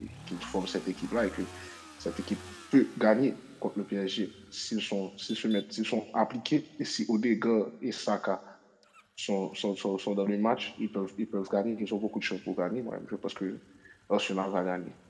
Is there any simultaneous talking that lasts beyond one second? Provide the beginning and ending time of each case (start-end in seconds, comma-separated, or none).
none